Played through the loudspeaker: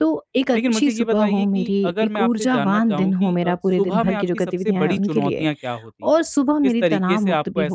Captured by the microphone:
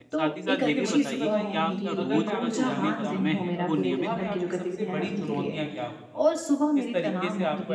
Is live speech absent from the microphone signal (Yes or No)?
No